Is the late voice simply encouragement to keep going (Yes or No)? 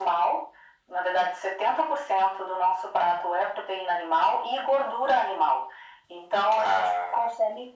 Yes